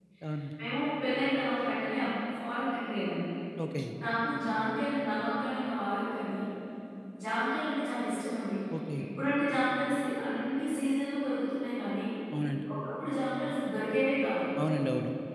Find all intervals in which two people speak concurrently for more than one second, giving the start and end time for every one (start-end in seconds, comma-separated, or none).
none